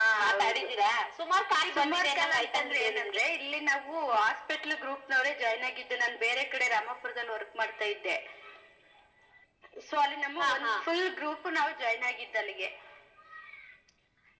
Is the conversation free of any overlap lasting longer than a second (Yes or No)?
No